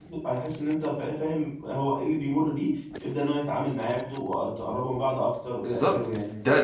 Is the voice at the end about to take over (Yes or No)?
Yes